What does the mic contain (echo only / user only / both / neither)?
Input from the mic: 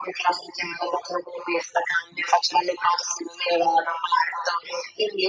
echo only